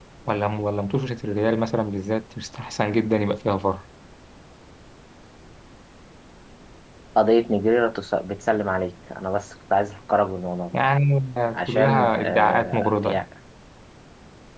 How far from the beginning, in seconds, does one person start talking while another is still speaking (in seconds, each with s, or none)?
11.6 s